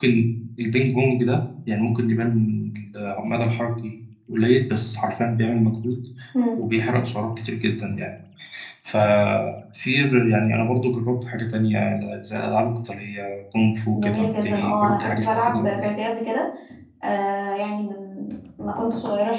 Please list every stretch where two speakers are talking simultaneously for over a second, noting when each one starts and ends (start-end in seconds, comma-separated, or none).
13.9-15.8